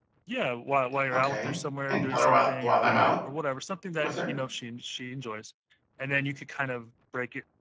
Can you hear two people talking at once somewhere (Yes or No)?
Yes